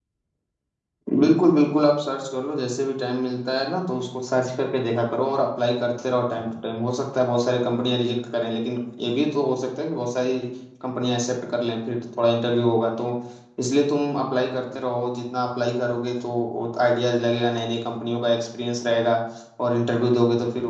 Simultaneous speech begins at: none

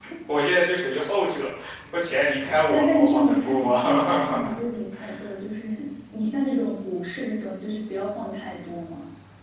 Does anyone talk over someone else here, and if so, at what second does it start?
2.7 s

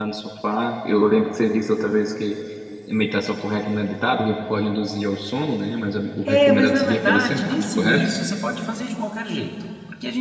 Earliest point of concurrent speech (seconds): 6.2 s

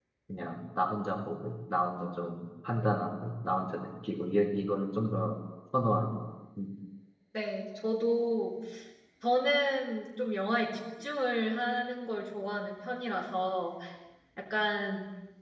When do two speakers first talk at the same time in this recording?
none

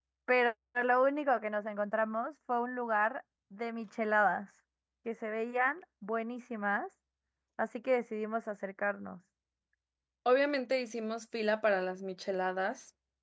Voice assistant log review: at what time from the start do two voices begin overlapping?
none

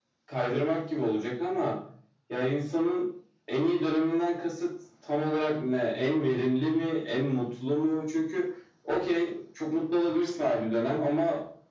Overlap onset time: none

